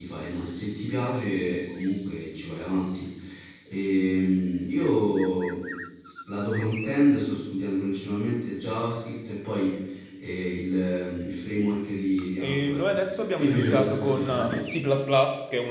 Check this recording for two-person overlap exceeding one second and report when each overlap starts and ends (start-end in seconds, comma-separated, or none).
12.4-14.6